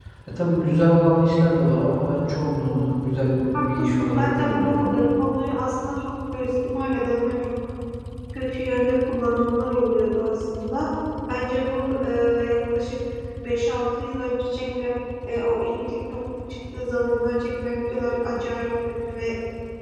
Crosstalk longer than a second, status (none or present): present